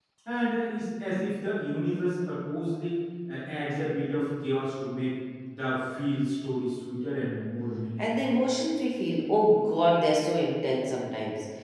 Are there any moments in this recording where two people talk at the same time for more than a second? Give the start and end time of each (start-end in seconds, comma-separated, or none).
none